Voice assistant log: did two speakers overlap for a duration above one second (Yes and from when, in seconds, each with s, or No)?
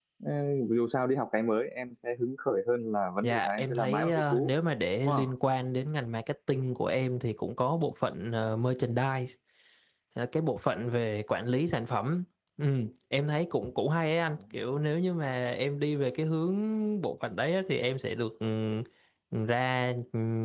Yes, from 3.2 s